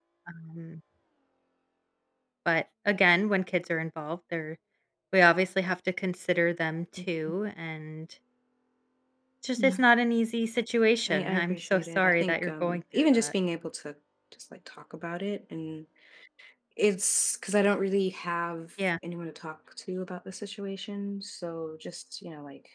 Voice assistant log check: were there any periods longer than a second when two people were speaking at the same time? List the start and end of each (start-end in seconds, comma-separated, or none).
11.1-13.3